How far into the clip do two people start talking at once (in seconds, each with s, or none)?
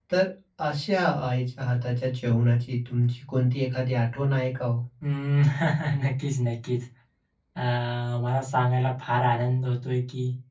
none